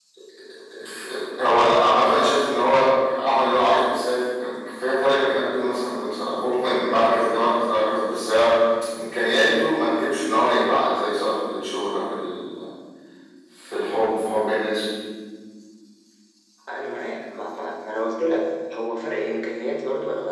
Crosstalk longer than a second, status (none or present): none